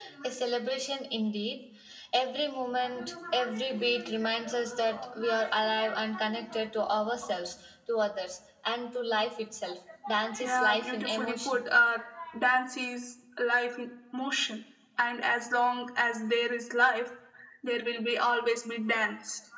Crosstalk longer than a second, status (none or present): present